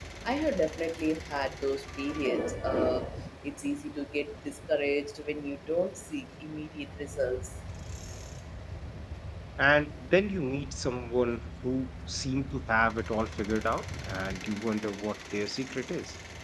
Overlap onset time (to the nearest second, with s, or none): none